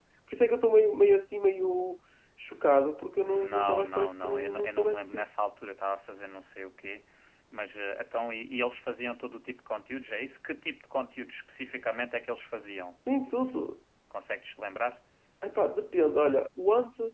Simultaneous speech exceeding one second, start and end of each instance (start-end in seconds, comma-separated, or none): 3.2-5.2